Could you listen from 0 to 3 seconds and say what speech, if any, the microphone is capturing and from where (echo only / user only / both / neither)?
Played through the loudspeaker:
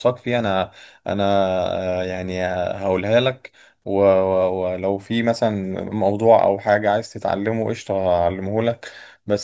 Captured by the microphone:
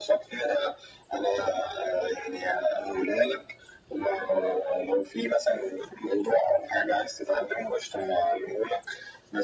echo only